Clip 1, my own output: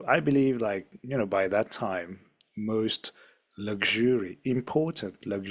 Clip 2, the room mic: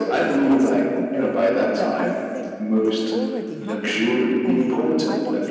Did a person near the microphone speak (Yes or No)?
Yes